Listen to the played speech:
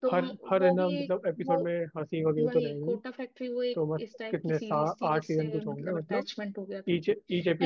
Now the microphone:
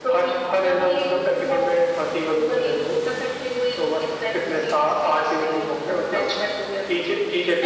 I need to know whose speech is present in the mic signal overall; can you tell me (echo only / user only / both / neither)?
echo only